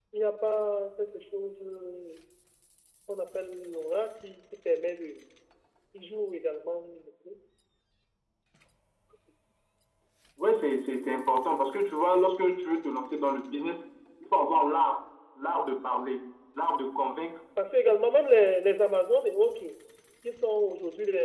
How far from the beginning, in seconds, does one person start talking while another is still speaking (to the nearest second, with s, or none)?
none